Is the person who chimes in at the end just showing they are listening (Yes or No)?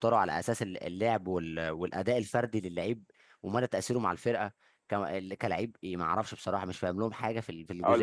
No